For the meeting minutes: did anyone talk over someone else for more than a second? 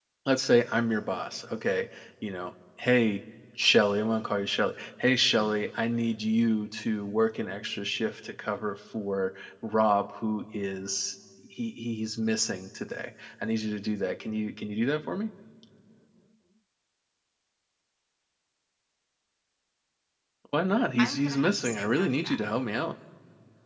Yes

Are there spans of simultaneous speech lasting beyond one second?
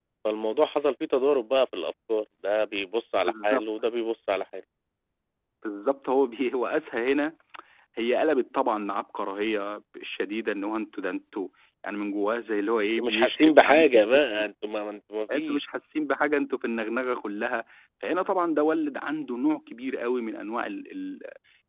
Yes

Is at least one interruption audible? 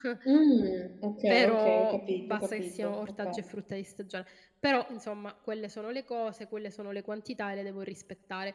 Yes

